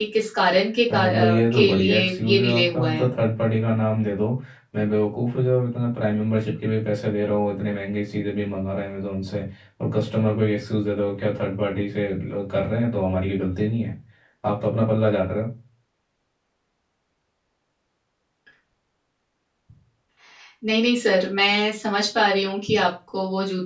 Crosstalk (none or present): present